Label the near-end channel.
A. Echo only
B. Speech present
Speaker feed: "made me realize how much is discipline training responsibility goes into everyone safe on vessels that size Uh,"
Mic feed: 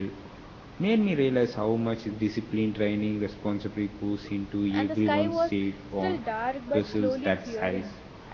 B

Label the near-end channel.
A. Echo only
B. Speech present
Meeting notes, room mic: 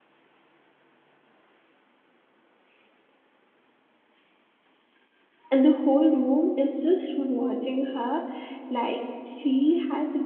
B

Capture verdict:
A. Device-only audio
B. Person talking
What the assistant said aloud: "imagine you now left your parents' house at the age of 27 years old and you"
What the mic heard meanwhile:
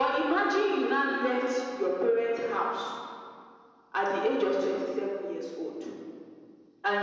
A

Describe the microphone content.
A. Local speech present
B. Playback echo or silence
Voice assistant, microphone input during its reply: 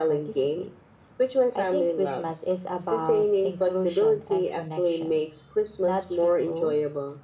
B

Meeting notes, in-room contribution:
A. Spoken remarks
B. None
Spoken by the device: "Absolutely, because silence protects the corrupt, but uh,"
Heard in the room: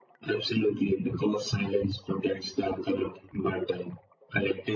B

